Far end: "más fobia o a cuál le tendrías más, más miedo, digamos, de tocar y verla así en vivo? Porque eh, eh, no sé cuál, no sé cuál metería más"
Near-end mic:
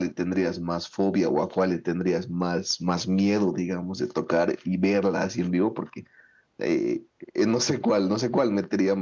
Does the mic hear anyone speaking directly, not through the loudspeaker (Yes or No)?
No